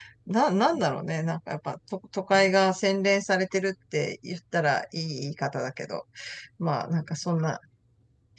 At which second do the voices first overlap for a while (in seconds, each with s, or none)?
none